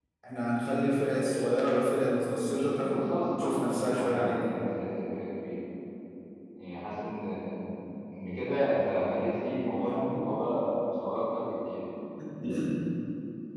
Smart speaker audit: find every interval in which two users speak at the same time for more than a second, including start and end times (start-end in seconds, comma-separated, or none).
2.5-4.4